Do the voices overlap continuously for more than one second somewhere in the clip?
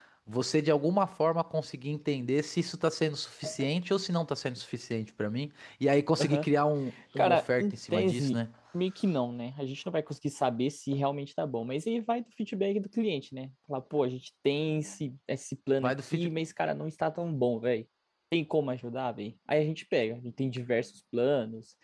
Yes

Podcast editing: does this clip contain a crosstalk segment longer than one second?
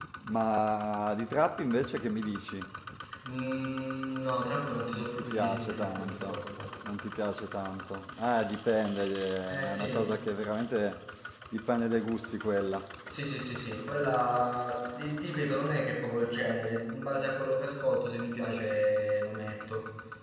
Yes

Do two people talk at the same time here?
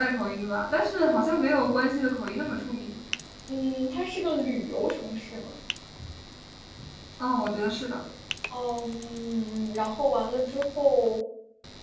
No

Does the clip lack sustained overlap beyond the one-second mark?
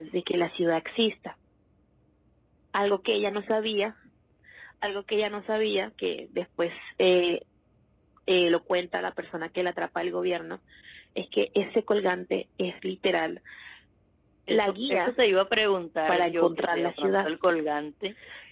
No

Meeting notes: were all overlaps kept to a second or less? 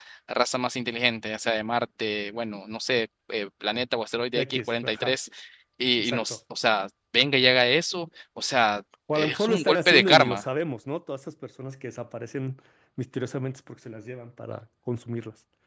No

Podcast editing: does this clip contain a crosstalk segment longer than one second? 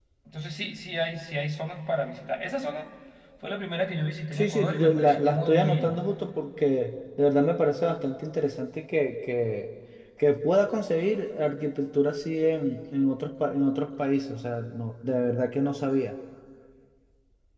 Yes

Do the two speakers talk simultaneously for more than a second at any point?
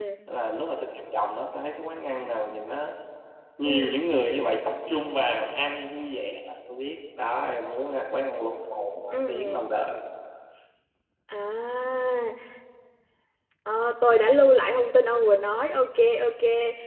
No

